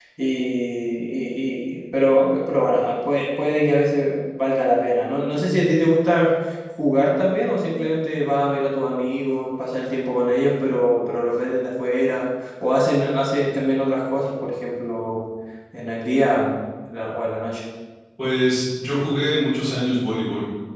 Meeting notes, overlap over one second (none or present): none